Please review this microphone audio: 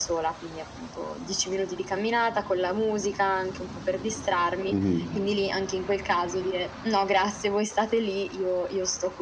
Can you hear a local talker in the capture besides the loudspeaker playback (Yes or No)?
Yes